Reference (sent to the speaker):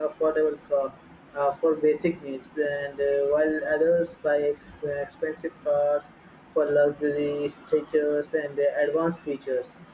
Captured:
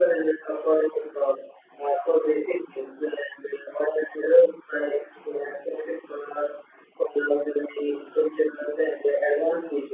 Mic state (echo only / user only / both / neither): echo only